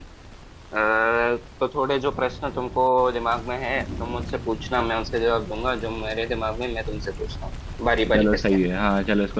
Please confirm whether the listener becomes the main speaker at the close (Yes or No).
Yes